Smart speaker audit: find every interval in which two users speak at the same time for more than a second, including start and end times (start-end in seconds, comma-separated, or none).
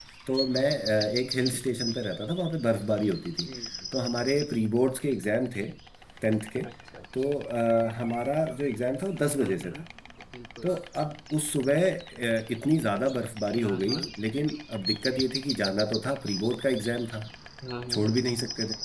none